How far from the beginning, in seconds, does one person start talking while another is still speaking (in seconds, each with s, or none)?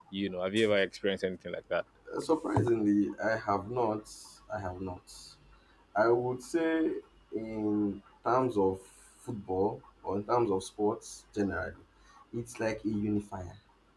none